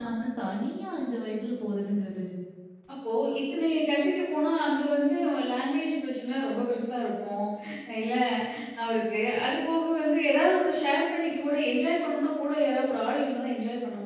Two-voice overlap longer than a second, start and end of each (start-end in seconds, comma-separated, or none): none